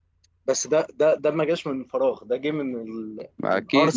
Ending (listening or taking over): taking over